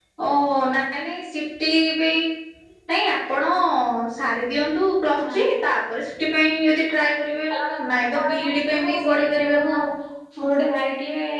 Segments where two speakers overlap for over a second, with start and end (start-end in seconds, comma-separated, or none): 8.2-9.7